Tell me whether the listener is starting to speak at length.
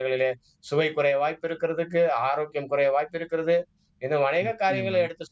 No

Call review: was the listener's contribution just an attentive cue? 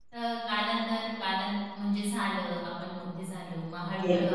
No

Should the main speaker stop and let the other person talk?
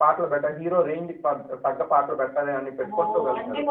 Yes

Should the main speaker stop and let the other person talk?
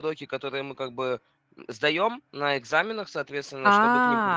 No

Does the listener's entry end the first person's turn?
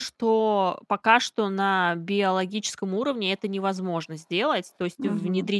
No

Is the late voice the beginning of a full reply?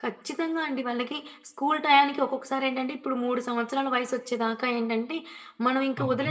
No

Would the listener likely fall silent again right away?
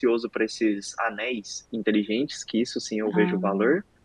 Yes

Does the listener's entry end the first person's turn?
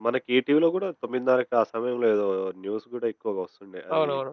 Yes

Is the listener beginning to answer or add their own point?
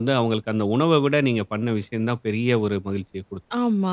Yes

